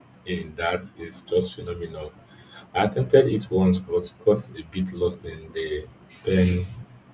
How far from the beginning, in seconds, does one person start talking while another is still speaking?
none

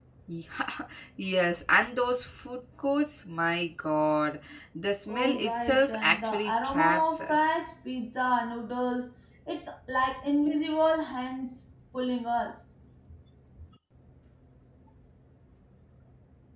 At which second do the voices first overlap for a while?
5.1 s

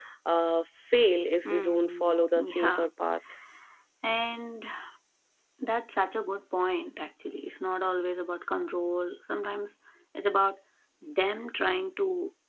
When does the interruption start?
1.4 s

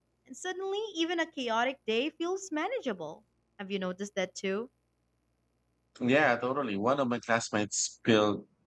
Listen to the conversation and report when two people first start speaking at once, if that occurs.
none

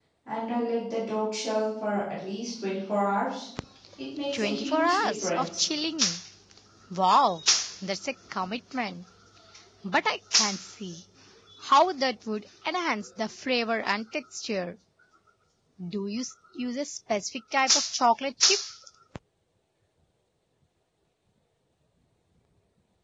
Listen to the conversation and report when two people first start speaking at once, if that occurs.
4.3 s

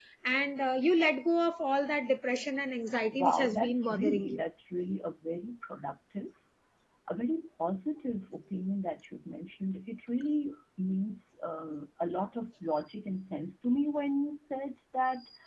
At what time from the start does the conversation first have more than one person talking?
3.1 s

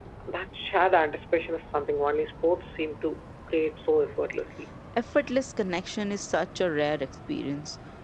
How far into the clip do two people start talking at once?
none

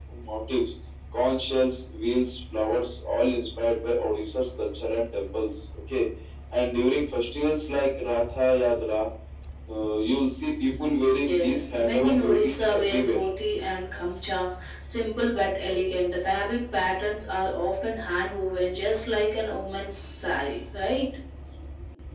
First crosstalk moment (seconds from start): 11.1 s

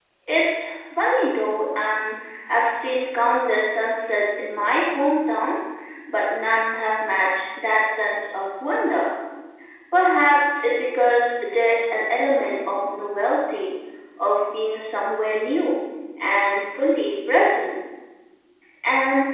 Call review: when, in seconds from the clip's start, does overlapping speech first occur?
none

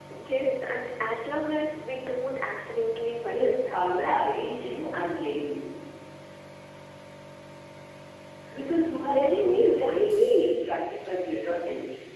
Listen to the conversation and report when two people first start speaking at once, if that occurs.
3.3 s

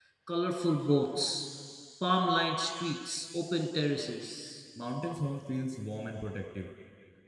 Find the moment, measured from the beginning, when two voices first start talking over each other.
none

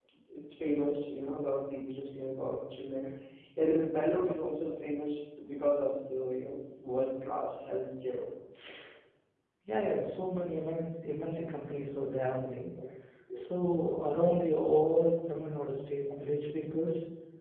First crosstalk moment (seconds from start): none

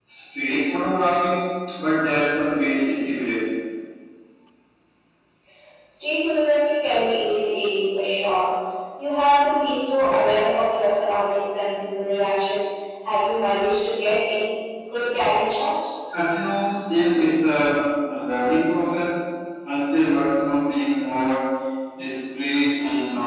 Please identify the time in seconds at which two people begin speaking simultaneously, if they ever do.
none

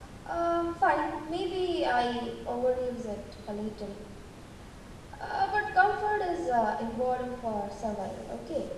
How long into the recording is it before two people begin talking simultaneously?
none

